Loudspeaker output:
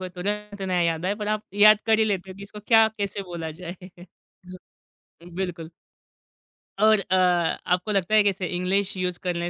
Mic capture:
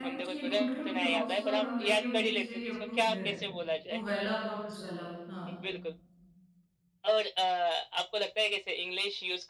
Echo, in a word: present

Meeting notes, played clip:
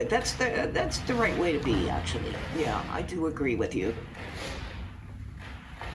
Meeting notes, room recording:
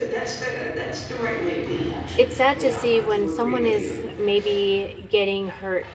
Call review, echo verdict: present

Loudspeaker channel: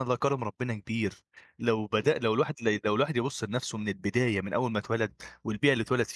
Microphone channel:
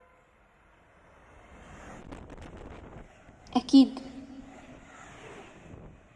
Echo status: none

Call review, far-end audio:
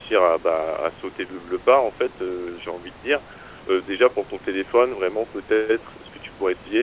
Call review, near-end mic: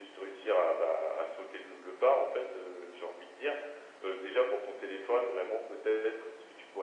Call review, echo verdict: present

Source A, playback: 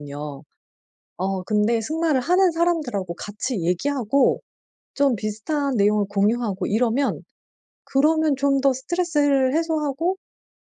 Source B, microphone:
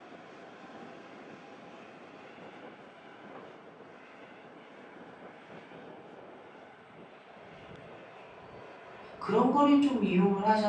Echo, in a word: none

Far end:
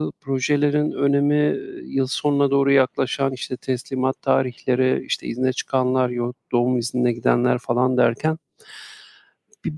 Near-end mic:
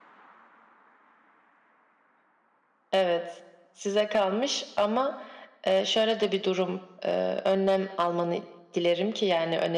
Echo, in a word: none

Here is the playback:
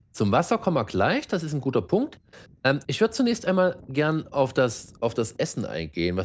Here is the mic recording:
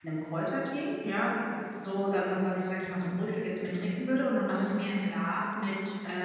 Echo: none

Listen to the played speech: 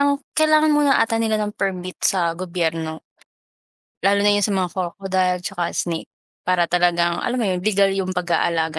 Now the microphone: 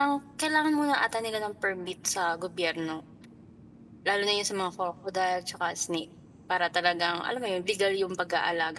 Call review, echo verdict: present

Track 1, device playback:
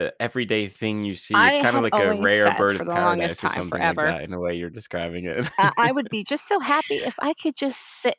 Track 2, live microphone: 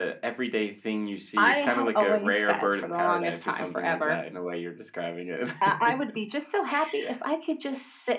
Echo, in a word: present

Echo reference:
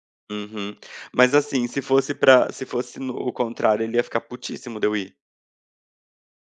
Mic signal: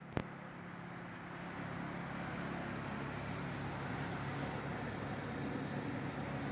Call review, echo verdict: none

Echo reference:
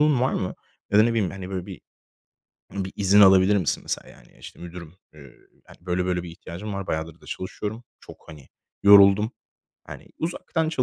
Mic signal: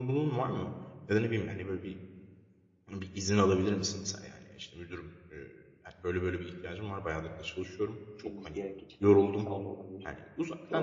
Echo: present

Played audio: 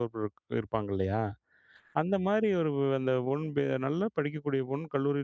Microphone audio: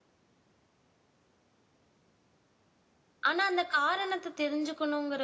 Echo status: none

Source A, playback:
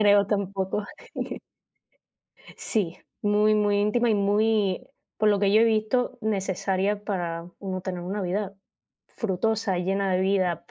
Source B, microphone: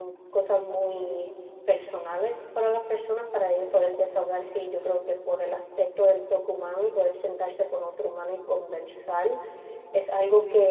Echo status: none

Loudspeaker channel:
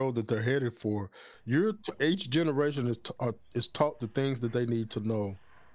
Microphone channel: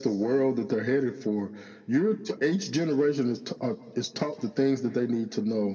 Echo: present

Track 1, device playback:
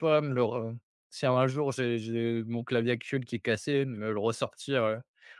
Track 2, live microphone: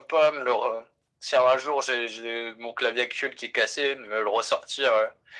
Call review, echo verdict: present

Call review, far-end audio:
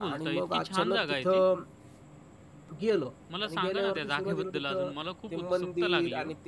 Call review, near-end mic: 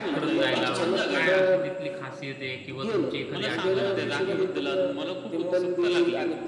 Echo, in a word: present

